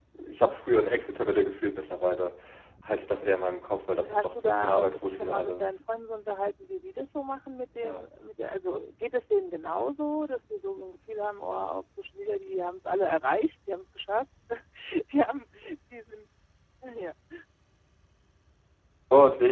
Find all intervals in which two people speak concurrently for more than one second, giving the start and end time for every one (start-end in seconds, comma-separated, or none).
4.0-5.8